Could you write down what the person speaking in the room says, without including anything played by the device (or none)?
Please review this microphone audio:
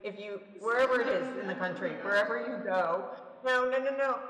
So did not mean that. Oh, my gosh.